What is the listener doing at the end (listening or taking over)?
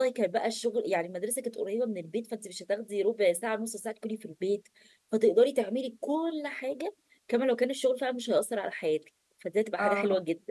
listening